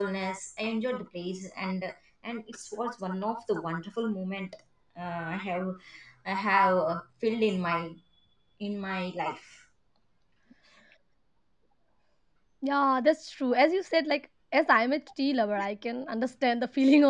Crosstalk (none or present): none